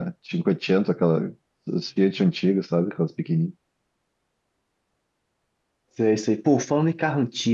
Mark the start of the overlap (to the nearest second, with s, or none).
none